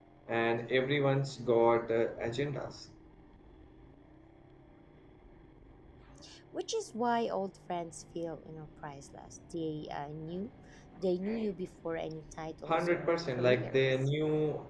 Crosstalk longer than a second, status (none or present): present